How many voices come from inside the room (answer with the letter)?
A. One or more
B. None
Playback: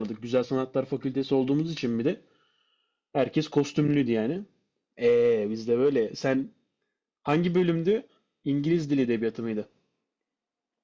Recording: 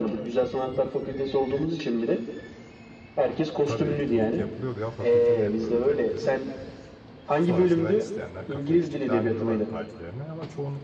A